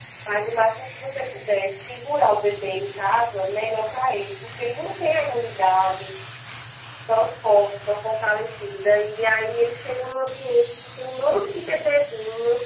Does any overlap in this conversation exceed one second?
No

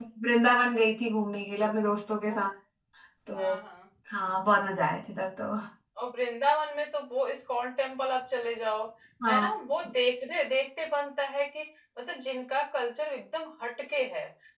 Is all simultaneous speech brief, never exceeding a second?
Yes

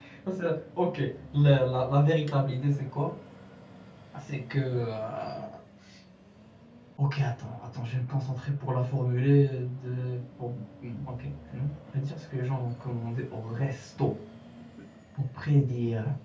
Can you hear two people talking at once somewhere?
No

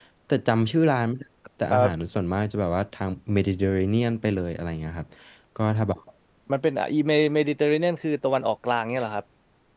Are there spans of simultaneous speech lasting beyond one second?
No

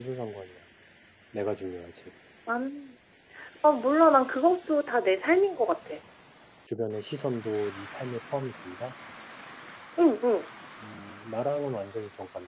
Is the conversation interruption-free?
Yes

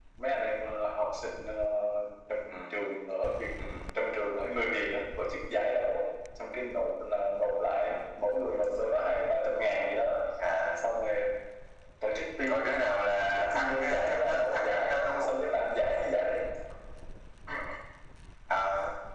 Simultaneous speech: Yes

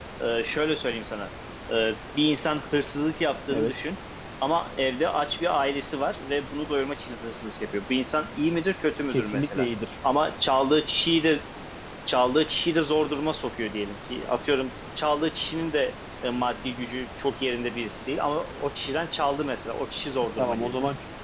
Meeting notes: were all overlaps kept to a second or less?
Yes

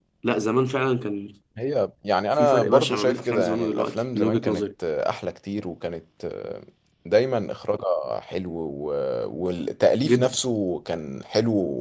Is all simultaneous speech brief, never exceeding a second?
No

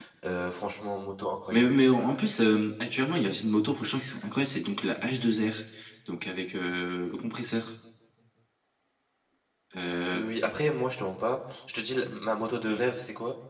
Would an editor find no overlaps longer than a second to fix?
Yes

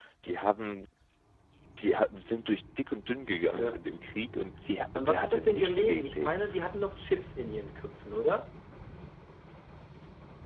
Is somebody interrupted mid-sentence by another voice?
Yes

